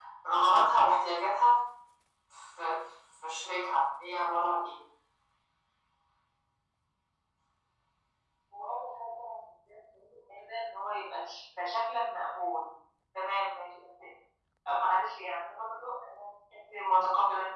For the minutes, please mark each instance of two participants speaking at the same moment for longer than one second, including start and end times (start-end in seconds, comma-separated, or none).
none